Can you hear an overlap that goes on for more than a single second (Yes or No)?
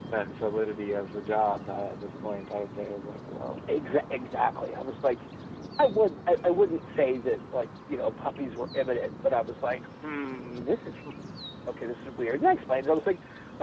No